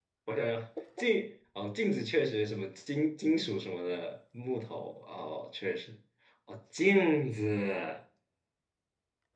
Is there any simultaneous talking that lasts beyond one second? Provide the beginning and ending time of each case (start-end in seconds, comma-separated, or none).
none